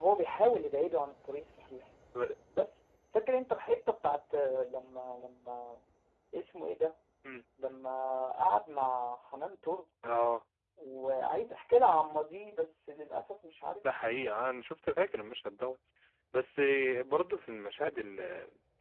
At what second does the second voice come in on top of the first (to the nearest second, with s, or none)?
none